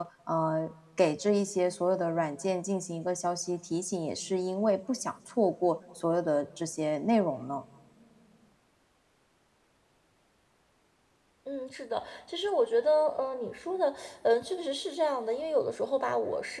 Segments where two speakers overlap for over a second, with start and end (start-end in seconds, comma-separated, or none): none